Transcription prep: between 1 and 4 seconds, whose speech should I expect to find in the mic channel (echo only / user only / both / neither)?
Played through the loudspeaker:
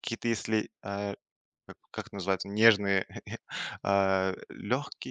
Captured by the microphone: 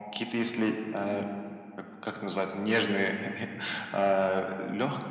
echo only